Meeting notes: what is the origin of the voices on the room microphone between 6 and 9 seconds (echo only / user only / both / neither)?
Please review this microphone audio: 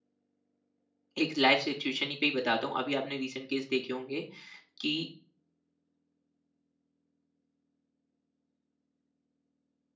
neither